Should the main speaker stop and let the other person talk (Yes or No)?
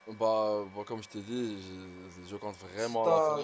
Yes